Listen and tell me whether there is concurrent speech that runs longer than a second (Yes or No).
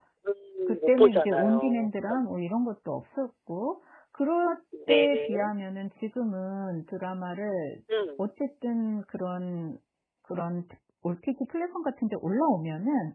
Yes